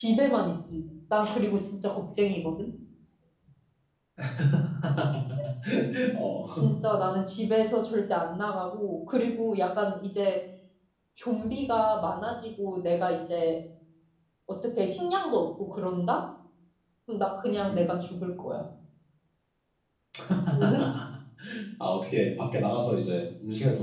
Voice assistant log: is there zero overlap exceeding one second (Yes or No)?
Yes